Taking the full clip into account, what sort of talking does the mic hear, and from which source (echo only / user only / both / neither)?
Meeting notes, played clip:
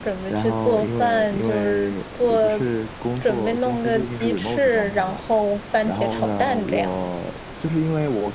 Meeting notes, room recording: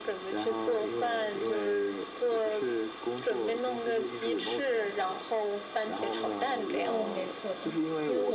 both